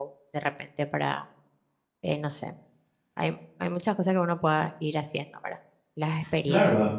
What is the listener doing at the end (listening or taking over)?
taking over